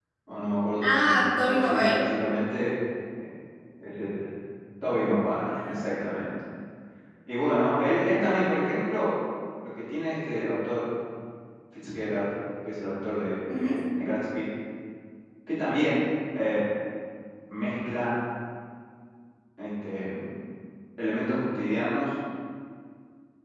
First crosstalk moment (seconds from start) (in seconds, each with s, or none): 0.8 s